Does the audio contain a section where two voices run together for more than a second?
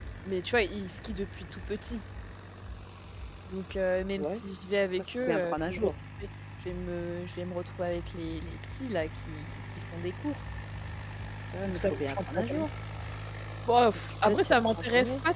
Yes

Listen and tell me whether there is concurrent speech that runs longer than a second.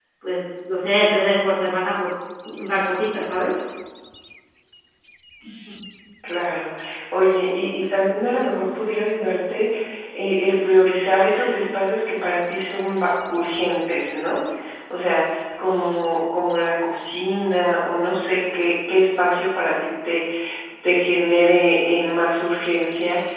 No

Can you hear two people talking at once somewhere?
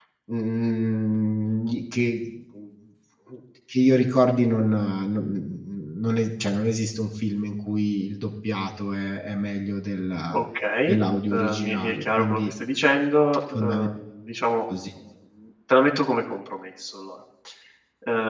Yes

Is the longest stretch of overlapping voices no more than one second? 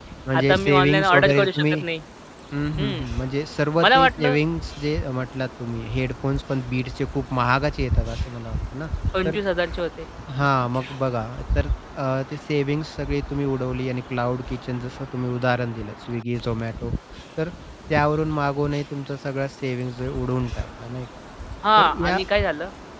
No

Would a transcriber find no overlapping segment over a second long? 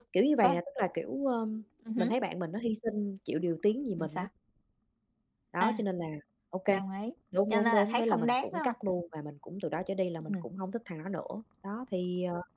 No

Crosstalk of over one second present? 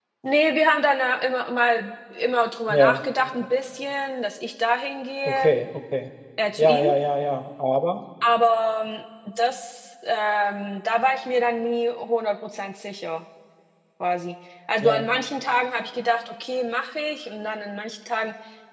No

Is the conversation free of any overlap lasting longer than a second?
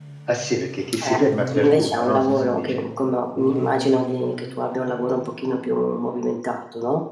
No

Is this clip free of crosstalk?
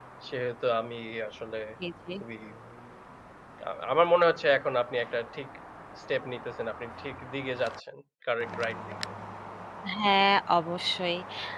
Yes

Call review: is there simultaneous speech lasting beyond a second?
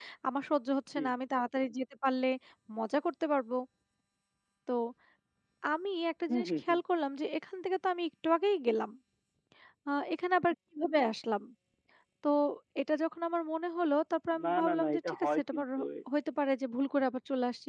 Yes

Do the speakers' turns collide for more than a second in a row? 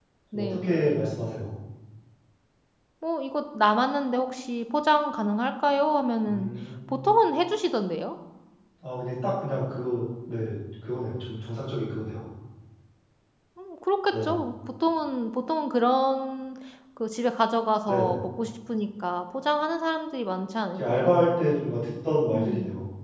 No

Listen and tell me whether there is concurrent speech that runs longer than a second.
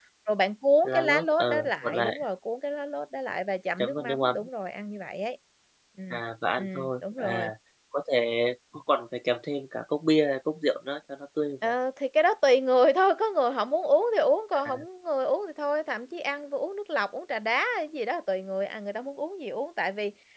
Yes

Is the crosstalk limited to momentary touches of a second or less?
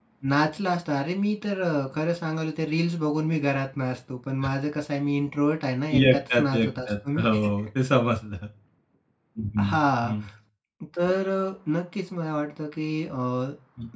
No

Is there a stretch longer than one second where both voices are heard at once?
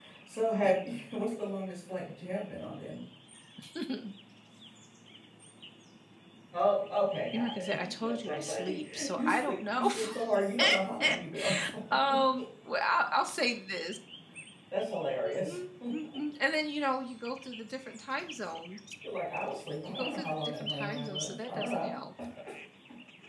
Yes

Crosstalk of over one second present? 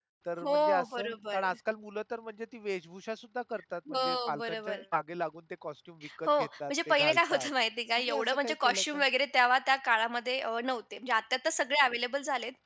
Yes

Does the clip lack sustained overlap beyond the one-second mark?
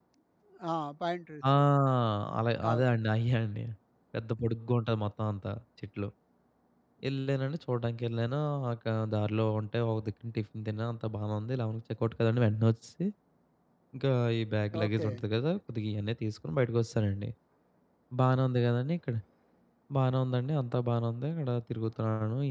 Yes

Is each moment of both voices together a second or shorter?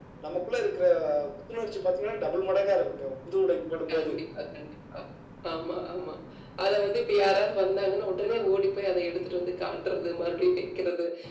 Yes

